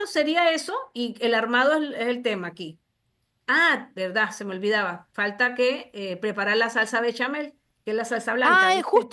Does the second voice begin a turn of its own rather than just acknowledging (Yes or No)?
Yes